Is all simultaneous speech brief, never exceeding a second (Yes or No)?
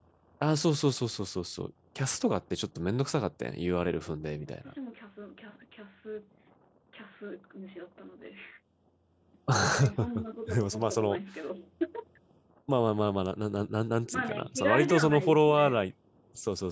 No